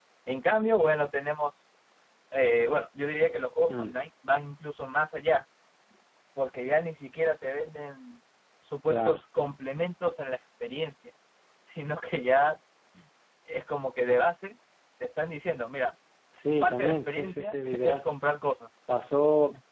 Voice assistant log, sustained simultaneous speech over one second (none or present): present